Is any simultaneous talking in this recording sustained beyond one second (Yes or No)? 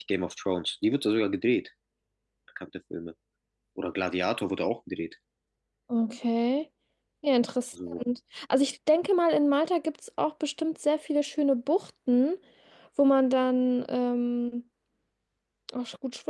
No